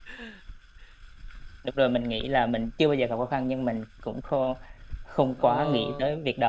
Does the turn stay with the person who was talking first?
No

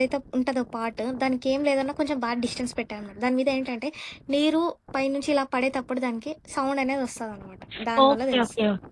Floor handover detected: Yes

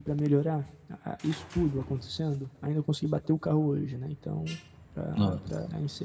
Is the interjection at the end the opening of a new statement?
No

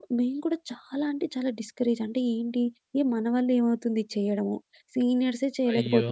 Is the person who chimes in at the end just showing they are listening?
Yes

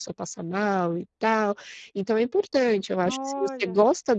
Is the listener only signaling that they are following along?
Yes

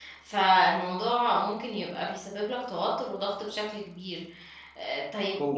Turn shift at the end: No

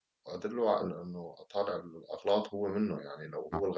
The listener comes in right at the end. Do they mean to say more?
No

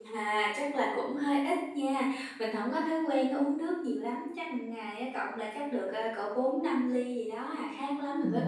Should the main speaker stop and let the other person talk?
Yes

